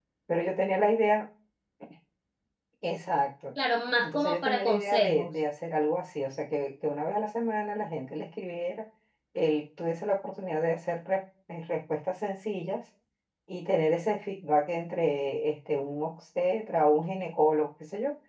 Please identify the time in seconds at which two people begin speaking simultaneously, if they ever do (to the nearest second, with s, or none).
4 s